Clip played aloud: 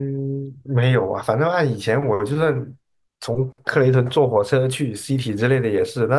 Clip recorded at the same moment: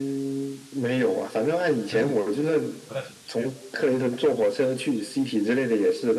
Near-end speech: present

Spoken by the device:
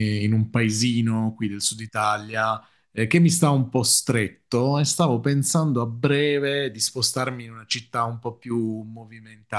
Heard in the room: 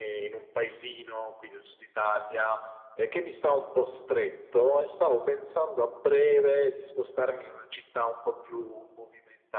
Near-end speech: none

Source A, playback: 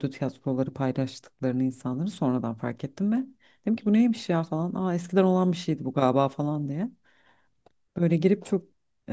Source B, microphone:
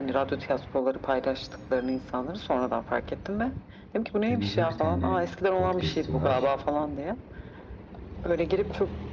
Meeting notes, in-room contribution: present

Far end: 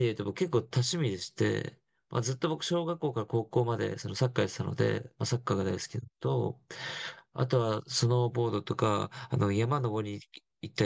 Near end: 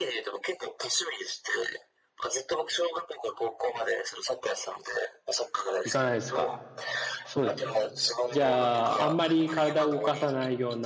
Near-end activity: present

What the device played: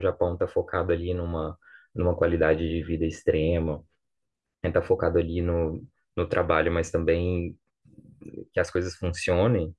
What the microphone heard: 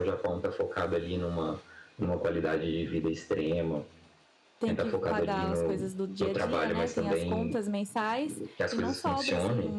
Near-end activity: present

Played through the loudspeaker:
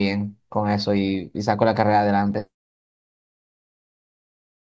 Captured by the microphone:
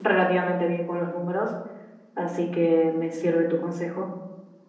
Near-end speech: present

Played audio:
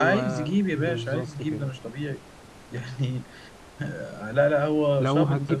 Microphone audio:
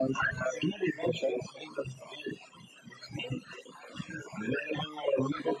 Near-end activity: none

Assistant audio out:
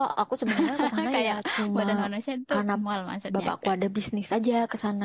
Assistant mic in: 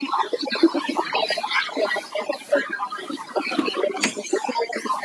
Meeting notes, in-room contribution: none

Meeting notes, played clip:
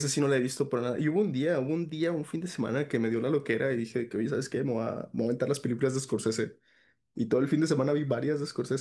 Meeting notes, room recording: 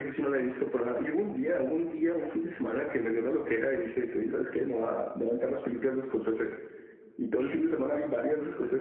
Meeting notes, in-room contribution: present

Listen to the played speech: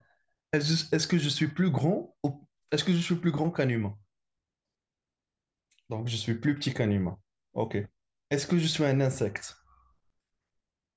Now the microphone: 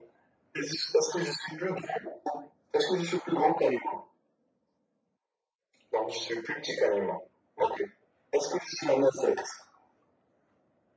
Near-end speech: none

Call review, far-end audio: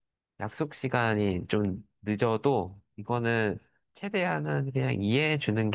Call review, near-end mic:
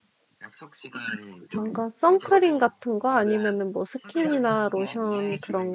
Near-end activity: present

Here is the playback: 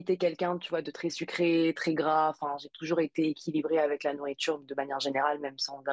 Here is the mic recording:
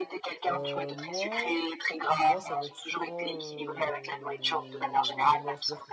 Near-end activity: present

